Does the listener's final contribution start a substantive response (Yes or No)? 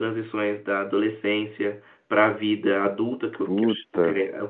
No